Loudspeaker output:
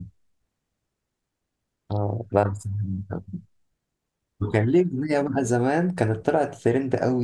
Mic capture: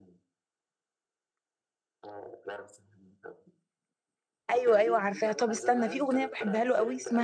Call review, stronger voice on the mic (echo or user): user